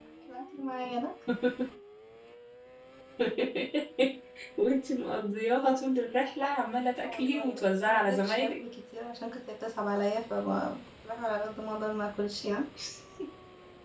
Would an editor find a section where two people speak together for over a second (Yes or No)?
Yes